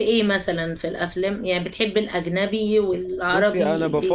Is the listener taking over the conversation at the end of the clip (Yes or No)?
Yes